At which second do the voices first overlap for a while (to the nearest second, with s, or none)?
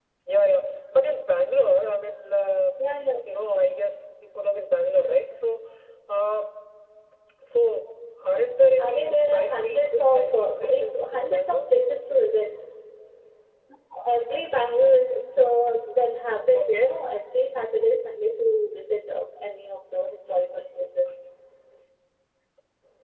9 s